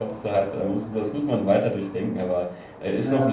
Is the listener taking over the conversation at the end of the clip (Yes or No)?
No